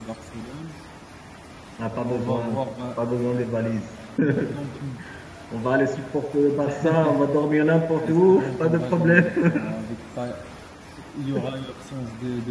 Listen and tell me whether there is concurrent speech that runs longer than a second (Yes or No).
Yes